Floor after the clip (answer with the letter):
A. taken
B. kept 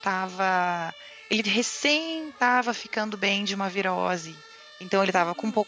B